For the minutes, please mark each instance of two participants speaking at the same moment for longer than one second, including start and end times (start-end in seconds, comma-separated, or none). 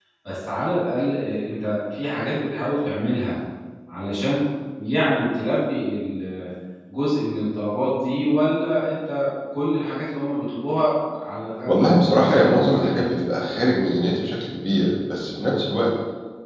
11.7-13.0